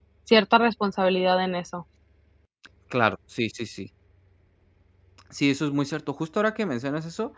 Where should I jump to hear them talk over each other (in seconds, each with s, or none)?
none